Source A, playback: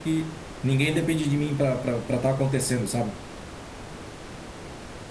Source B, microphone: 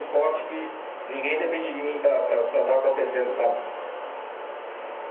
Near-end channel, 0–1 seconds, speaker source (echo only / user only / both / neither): echo only